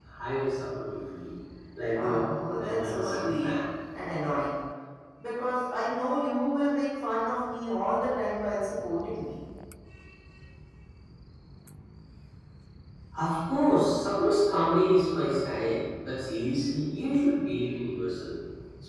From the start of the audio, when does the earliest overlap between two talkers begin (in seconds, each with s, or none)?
1.9 s